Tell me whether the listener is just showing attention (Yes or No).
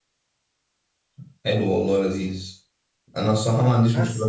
Yes